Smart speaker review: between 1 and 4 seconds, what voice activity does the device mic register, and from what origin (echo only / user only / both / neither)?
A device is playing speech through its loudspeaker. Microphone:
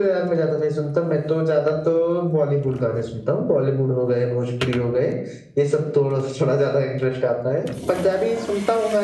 echo only